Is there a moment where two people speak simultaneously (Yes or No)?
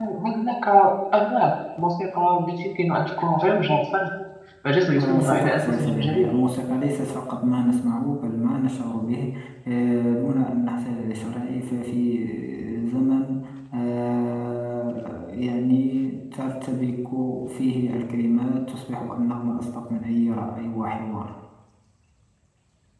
Yes